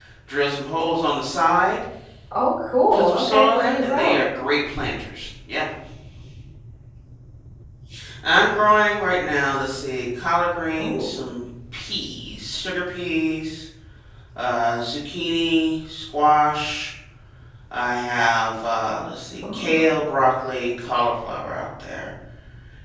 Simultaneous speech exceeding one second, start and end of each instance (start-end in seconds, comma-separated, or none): 2.9-4.2